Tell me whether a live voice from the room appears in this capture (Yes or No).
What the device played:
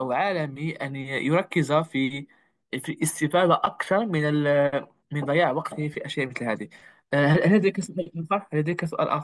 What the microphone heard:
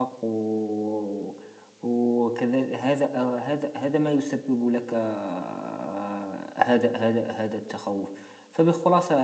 Yes